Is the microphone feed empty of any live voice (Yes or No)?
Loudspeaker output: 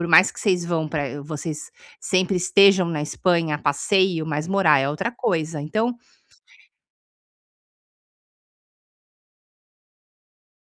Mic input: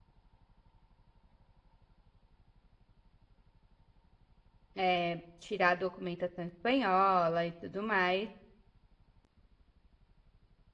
No